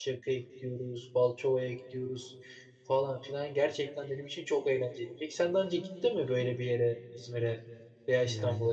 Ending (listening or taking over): listening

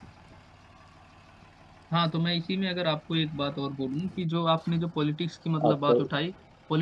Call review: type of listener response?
listening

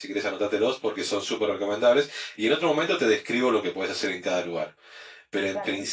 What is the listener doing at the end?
listening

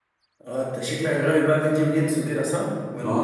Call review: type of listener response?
taking over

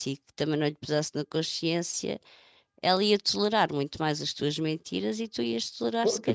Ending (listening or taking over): taking over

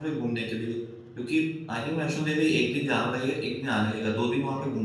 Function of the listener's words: taking over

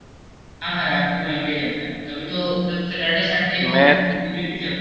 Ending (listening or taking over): listening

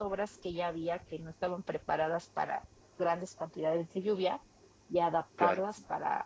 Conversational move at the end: listening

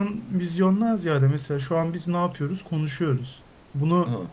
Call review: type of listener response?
listening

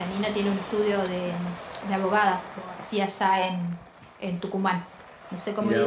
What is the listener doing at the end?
listening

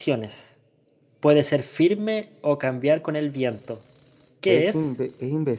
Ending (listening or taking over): taking over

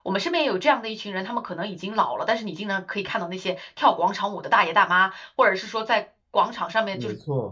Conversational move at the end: listening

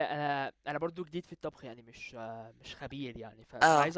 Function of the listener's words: listening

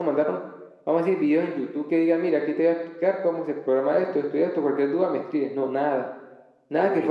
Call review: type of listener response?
listening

